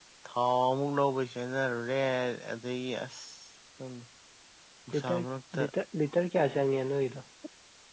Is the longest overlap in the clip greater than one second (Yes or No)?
No